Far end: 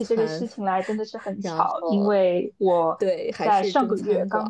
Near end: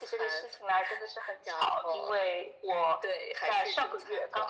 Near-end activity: none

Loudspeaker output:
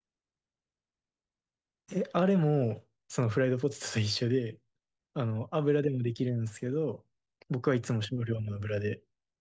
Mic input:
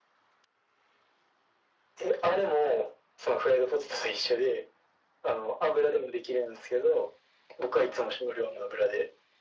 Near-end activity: none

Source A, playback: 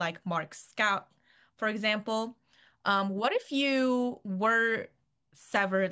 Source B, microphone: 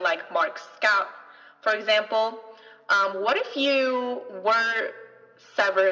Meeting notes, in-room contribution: none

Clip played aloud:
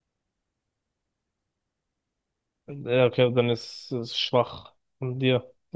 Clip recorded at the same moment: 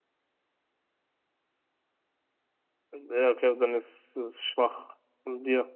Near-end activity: none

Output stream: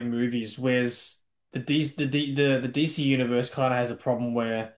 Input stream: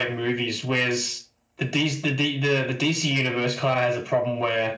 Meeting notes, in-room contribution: none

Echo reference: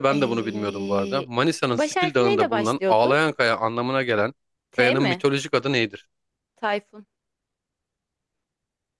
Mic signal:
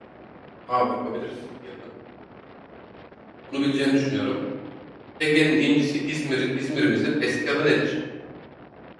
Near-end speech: present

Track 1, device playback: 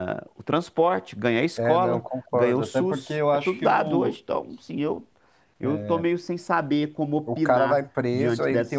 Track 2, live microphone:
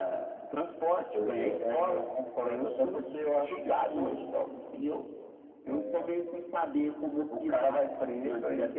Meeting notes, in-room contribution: present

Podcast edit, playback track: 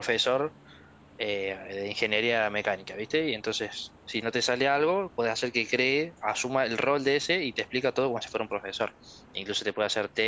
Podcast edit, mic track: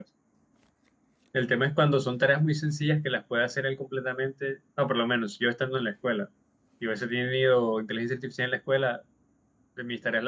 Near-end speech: present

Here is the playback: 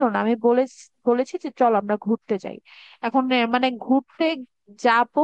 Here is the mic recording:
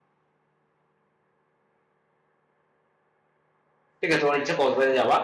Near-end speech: present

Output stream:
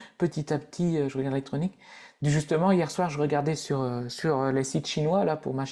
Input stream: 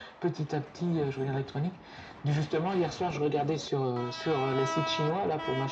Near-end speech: none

